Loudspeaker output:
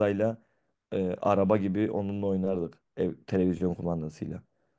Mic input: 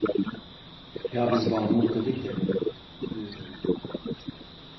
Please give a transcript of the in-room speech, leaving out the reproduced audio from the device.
Ya biz bağımlılık dedik de e,

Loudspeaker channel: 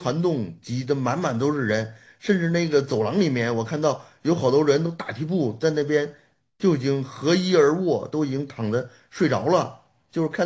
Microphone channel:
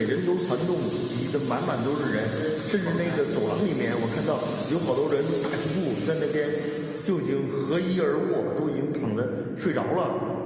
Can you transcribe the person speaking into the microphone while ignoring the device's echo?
就完全放开，

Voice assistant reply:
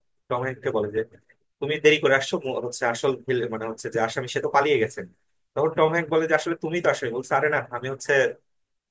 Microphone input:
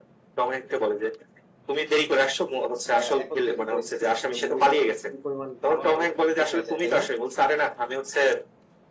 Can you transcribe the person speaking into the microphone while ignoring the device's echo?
আহ, একত্রিত হয়েছে যেখানে মুভিটাতে কি পরিমাণ ভালো হবে এটা তো বোঝাই যায় তাই না

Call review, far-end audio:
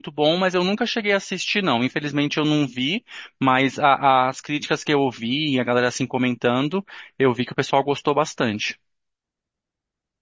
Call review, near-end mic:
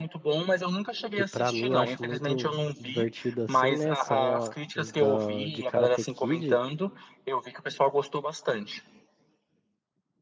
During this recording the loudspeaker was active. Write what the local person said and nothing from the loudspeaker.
que pra mim eu acho muito divertido assim, né? São a- os da, de Karate Kid.

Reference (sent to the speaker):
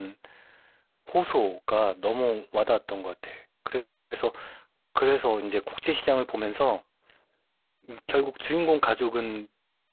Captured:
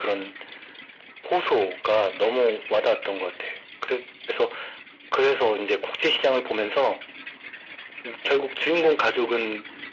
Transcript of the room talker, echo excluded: none

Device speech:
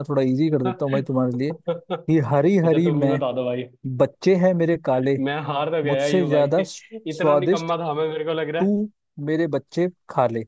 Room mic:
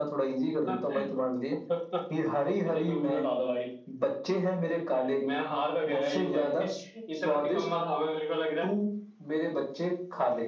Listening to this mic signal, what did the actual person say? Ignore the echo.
none

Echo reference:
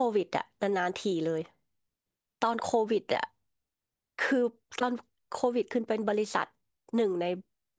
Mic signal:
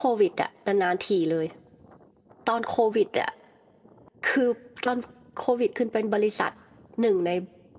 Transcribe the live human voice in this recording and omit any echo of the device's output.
none

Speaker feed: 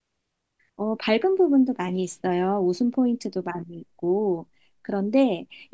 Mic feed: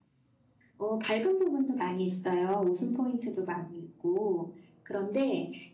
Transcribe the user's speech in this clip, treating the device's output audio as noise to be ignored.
none

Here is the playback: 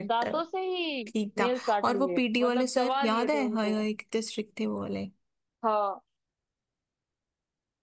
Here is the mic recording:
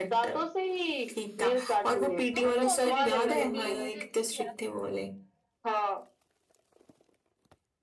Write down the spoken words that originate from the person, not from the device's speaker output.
तुम कौन सी टीचर बनी थी मुझे अच्छे से याद

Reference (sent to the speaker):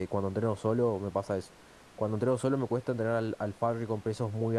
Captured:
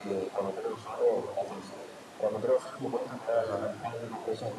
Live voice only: Ajá.

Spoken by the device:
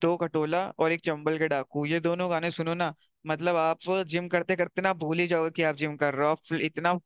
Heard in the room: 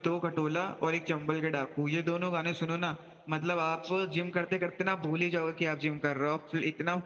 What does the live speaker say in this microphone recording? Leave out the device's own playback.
none

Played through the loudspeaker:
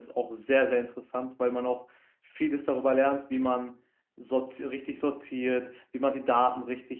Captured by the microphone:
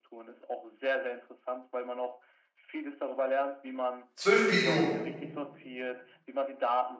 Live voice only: 12 Billionen.

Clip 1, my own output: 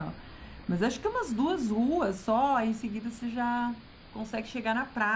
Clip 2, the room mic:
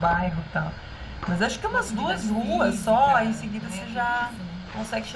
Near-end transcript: uma atividade física, né? Tudo isso, né?

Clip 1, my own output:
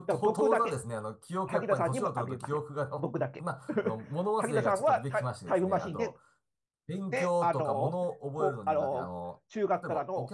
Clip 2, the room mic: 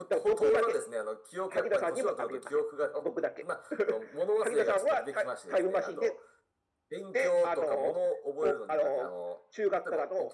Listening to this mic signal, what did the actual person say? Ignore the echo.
none

